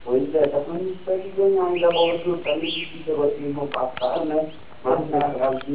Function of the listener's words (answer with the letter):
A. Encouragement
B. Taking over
A